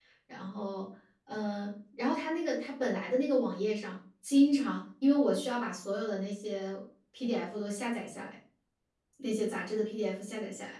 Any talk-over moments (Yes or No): No